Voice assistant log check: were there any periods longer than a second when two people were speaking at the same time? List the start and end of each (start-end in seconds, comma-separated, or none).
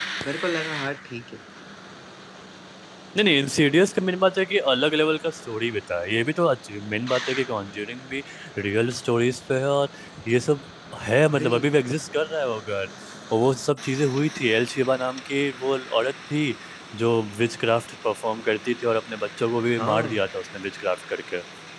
none